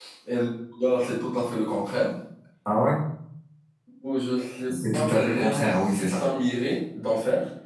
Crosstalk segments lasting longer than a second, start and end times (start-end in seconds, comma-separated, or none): 4.7-6.2